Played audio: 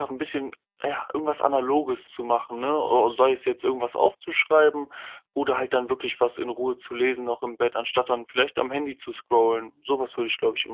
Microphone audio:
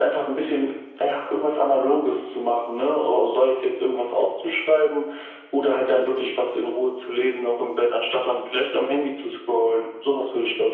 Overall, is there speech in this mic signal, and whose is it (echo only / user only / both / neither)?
echo only